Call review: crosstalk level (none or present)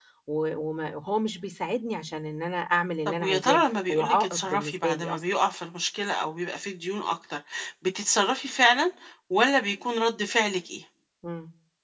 present